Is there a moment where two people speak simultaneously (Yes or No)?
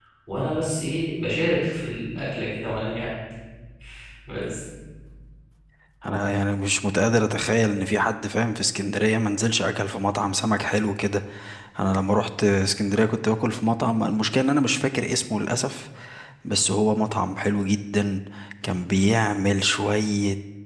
No